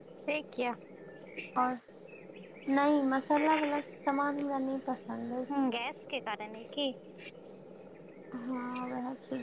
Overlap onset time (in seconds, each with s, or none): none